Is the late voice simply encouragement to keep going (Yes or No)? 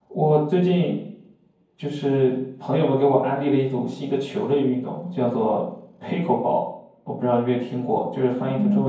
No